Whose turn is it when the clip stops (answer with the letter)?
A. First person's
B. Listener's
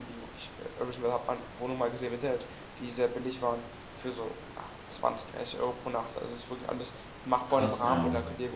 A